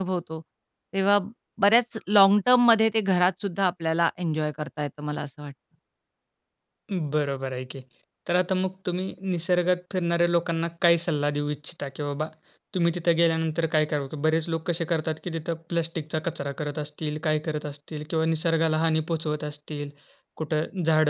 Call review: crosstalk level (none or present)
none